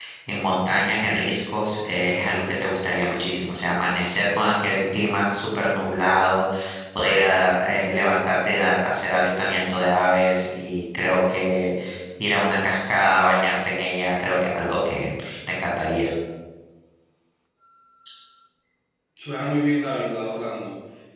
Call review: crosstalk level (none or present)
none